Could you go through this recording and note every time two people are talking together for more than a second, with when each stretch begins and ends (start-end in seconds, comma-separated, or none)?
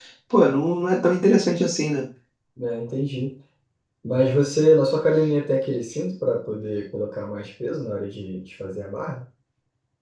none